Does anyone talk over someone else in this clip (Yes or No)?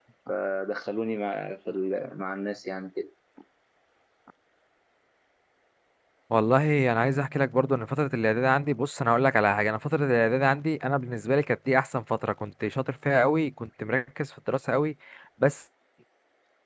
No